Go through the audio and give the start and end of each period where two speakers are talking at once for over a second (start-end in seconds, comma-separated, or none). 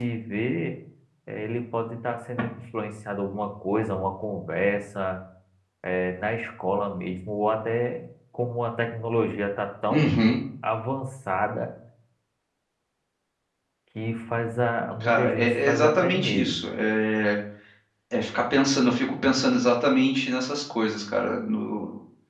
15.0-16.5